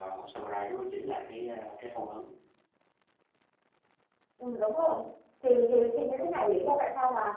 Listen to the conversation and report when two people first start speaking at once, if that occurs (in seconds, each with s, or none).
none